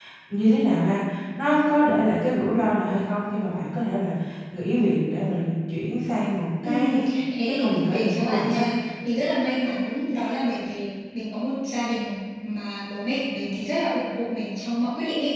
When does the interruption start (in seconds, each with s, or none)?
6.6 s